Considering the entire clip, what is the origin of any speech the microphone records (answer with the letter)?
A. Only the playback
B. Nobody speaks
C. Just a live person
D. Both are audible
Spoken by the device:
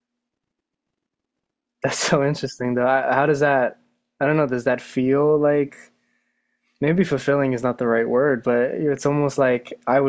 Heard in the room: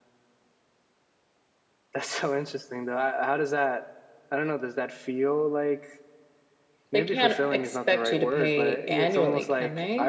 D